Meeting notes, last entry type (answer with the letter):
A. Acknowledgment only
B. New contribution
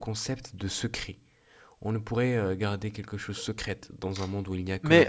B